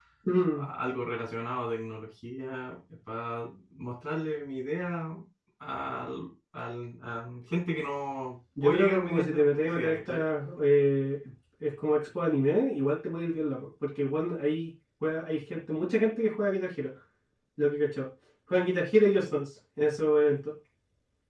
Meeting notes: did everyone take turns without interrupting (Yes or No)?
No